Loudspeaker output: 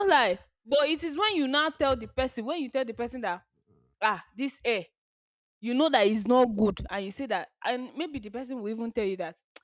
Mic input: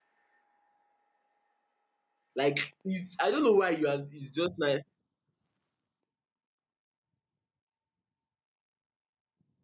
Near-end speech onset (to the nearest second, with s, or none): 2 s